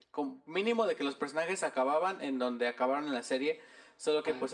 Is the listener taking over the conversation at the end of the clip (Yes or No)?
No